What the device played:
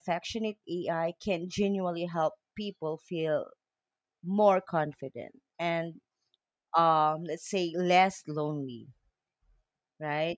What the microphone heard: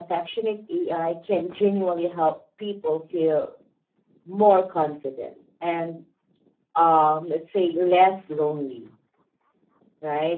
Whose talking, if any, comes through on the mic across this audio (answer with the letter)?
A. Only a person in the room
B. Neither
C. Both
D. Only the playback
D